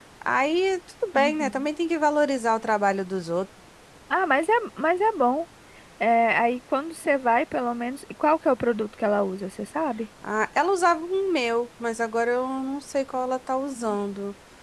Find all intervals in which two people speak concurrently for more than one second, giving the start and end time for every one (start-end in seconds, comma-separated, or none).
none